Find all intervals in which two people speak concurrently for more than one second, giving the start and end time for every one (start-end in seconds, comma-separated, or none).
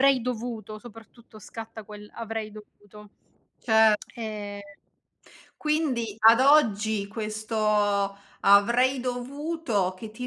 none